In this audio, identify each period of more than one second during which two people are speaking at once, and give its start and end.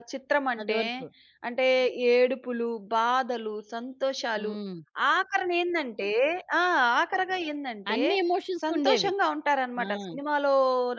none

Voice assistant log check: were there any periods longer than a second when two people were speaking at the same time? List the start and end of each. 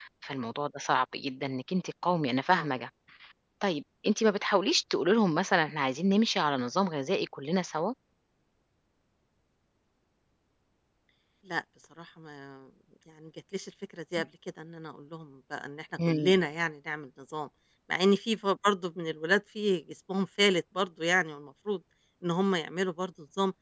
none

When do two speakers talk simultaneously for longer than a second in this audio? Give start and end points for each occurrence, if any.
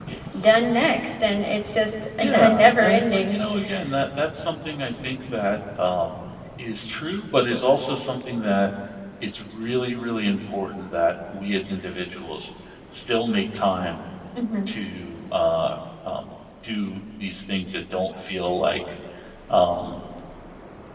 2.2-3.4

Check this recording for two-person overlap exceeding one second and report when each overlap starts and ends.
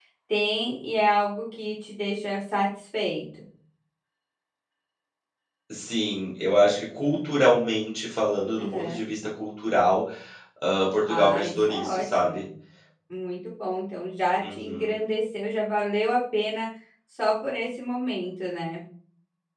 11.1-12.4

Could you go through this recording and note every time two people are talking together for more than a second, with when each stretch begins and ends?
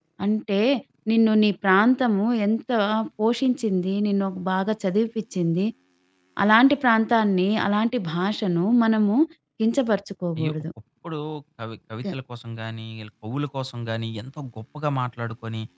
none

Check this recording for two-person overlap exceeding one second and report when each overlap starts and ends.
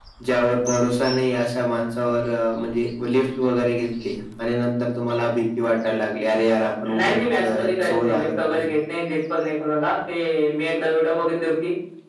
6.9-8.6

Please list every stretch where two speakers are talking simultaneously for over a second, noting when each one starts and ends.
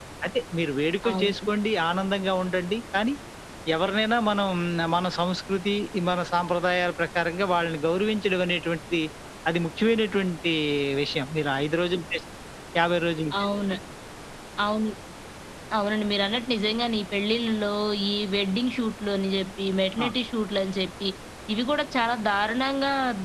none

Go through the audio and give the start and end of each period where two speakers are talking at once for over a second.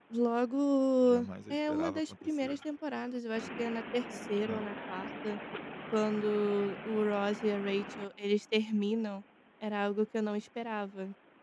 1.0-2.6

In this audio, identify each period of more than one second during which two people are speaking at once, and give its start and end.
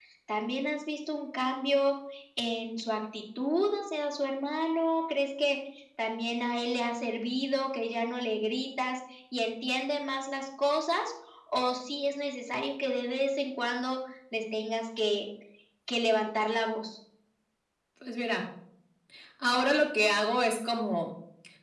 none

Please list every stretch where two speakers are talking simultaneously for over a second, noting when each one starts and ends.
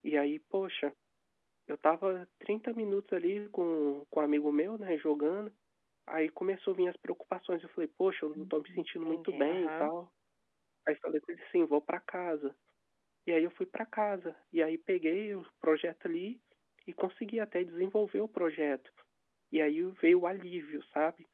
8.3-9.9

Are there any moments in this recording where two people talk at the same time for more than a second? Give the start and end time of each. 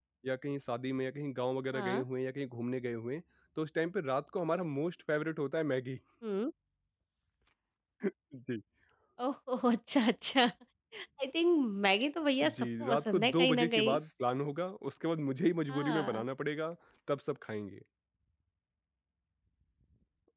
12.4-14.0

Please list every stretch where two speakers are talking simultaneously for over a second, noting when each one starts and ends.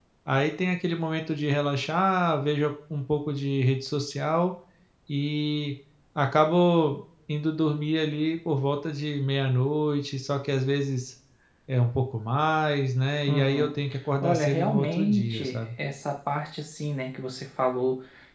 14.2-15.6

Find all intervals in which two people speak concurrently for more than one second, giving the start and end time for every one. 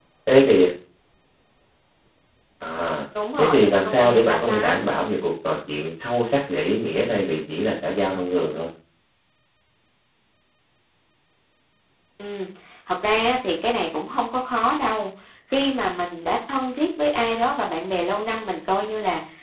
3.4-4.8

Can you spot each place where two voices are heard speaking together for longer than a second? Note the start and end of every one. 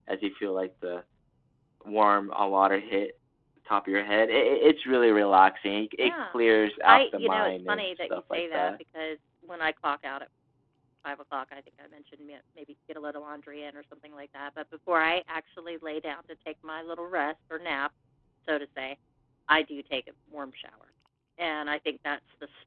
6.9-8.7

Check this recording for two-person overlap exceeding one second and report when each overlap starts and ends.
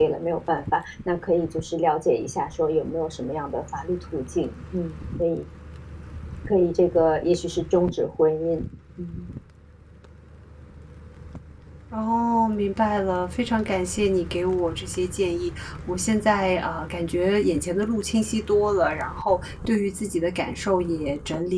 none

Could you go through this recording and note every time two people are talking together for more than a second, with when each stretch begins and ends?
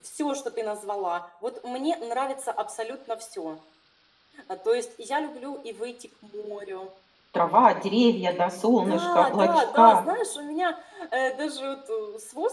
8.8-10.0

